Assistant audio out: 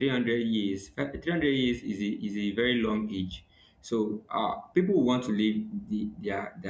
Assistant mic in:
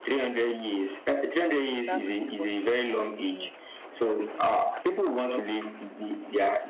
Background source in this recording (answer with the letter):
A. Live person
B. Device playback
A